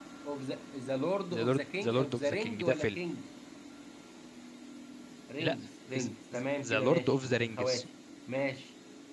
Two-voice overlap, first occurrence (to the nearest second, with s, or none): 1 s